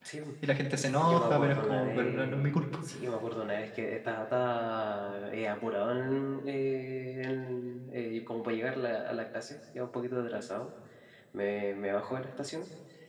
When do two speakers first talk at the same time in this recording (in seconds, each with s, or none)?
1.0 s